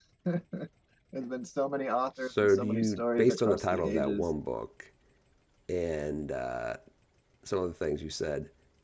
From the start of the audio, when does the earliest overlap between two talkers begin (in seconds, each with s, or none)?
2.2 s